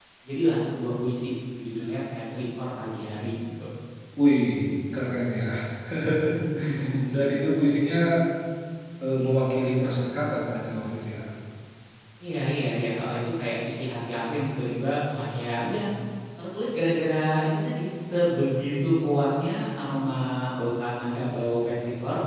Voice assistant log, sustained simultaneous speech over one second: none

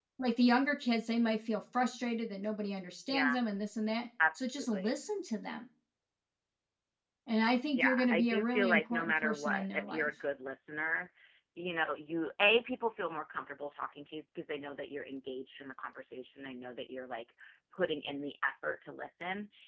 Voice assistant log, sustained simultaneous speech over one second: present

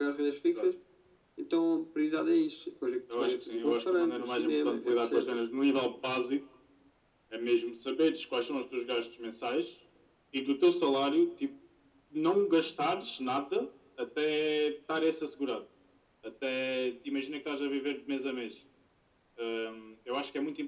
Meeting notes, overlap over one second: present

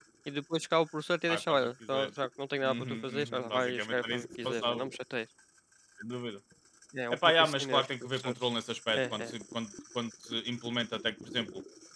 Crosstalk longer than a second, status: present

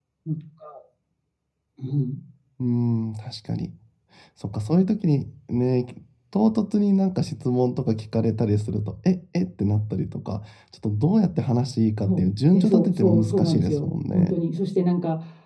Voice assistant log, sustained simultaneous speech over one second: present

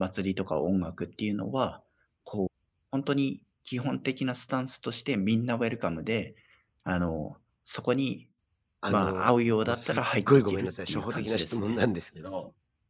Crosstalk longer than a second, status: present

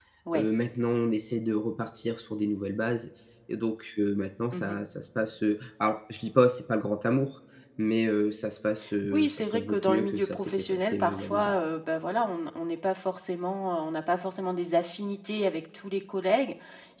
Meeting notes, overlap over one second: present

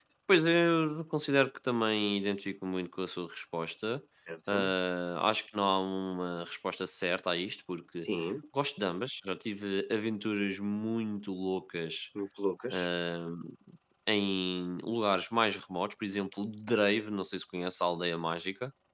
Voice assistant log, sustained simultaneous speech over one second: none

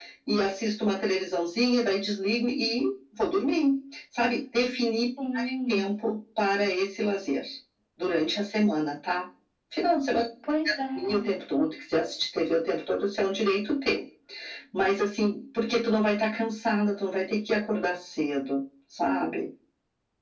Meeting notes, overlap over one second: none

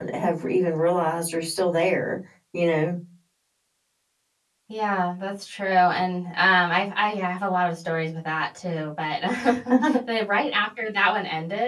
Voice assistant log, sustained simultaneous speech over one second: none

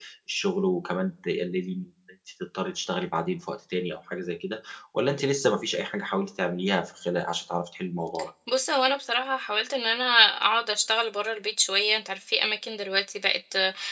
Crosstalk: none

